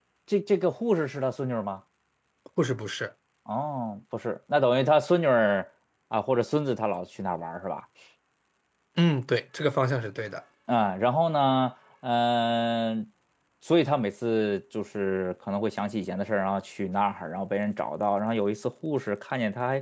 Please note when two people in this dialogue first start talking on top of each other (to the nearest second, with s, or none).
none